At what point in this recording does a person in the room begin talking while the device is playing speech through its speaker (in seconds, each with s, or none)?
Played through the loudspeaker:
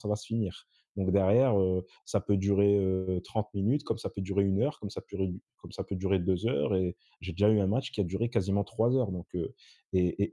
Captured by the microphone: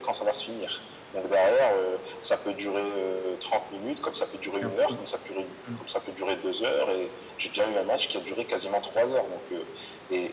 4.6 s